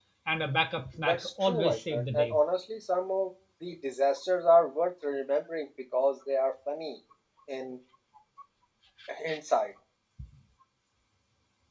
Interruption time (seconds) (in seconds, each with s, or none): 1.1 s